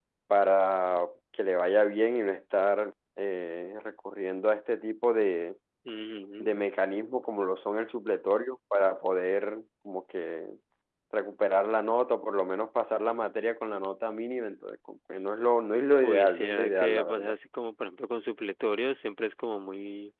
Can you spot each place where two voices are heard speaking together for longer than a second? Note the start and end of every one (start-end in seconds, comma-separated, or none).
16.0-17.4